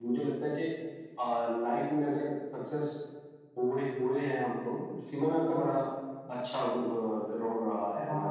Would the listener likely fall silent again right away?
No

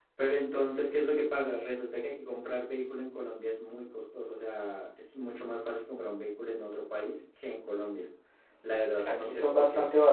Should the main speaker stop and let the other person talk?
Yes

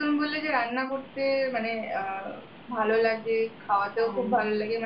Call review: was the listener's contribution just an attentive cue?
Yes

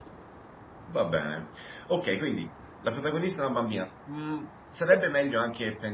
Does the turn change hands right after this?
No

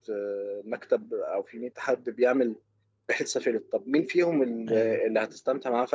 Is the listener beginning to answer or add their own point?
No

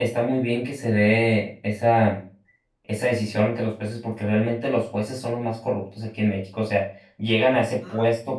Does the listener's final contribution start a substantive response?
No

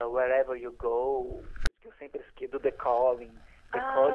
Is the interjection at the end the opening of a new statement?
No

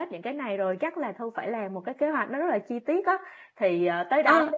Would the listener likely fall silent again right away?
Yes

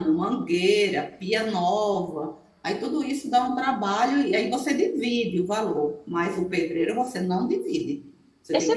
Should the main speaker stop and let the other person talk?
Yes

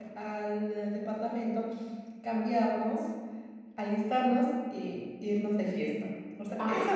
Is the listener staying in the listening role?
Yes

